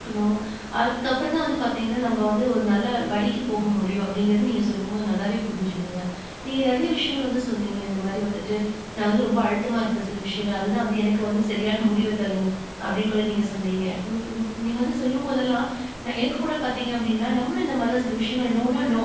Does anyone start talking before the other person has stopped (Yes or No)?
No